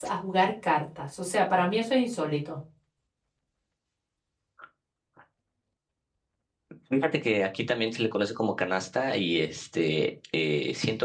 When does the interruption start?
none

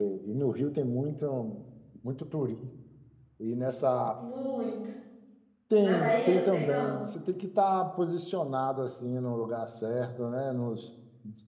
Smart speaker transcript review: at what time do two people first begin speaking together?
5.8 s

